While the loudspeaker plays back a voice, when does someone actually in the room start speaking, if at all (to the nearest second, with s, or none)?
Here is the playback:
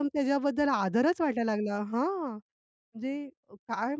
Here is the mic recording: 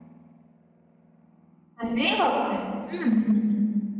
2 s